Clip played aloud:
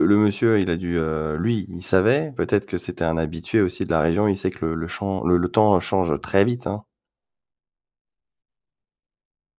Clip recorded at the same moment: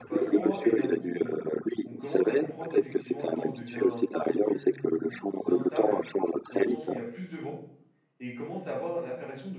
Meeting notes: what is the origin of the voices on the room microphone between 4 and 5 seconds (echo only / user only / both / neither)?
both